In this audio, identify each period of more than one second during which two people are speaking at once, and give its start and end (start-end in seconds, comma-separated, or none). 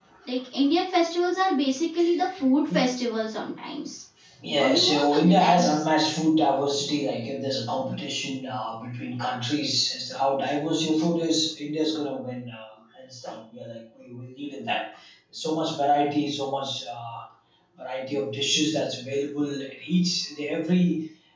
4.6-5.8